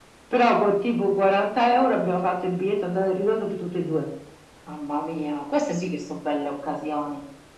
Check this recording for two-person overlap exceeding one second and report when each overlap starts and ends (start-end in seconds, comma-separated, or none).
none